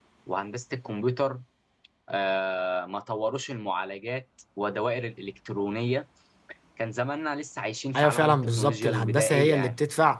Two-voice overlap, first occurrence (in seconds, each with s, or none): 7.9 s